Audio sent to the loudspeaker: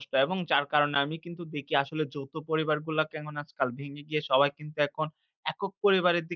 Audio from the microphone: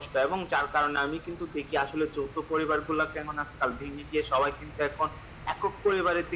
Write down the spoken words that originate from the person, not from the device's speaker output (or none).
none